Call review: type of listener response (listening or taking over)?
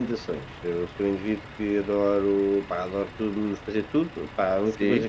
listening